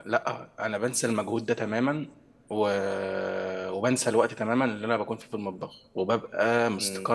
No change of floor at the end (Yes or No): Yes